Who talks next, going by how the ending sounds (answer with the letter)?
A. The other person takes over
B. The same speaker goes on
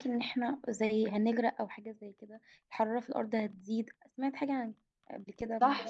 A